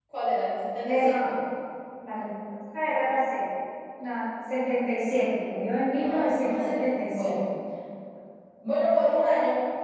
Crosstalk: present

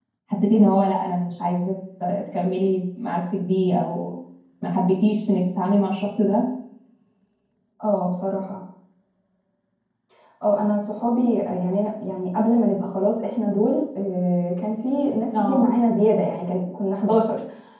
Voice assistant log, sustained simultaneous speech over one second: none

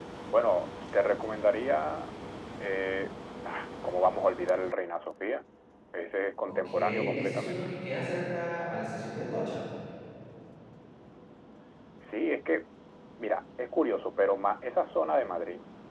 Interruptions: present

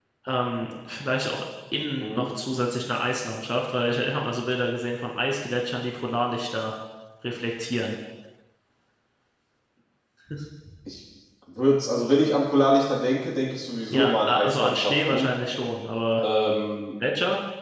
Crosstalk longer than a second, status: present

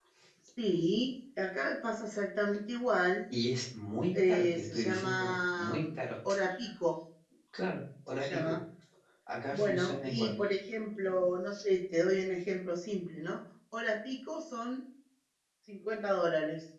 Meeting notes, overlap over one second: present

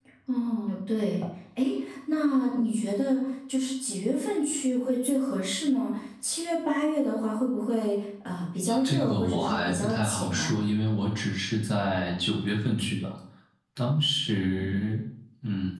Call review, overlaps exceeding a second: present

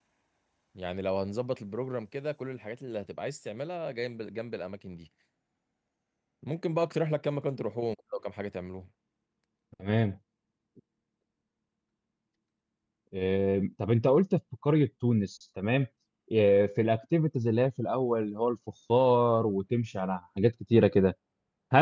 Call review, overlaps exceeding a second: none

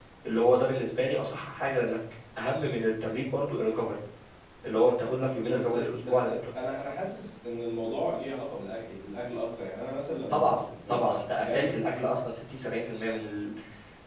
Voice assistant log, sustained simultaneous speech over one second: present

